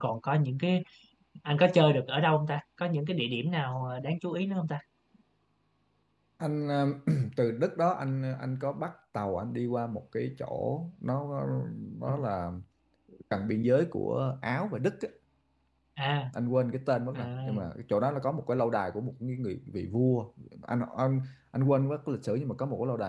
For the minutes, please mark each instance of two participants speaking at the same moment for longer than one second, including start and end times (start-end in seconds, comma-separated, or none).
none